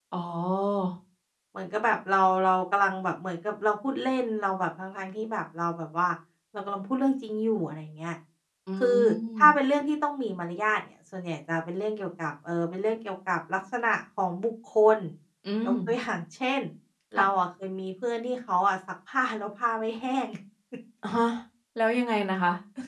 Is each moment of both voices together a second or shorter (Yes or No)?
Yes